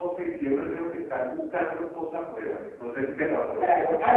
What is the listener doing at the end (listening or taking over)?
taking over